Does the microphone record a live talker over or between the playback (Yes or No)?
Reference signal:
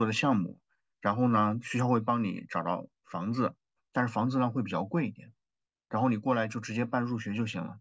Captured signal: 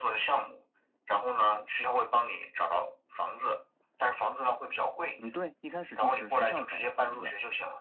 Yes